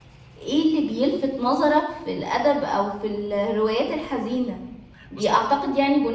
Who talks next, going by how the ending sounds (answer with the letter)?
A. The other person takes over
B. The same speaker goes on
B